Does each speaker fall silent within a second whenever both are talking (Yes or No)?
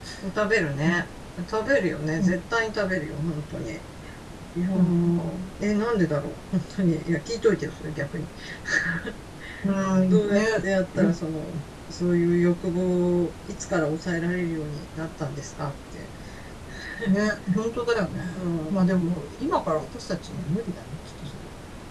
Yes